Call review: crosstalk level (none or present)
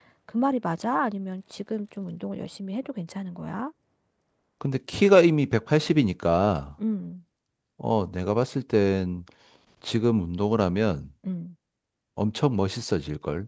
none